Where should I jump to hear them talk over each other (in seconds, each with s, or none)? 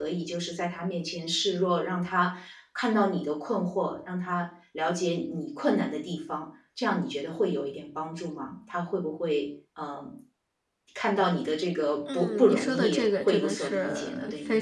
12.1 s